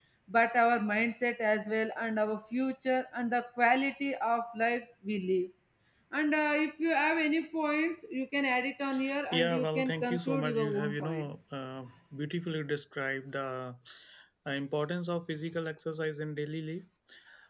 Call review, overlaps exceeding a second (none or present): present